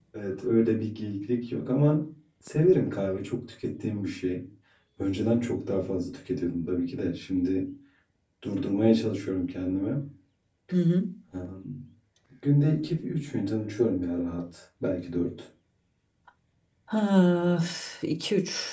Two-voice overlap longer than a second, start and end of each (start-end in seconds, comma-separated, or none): none